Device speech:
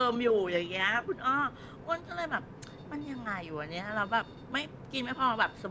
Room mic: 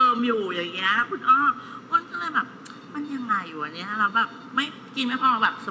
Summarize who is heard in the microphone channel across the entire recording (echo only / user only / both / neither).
echo only